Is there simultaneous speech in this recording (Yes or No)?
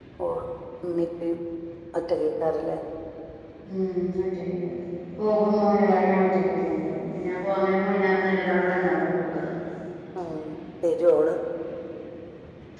No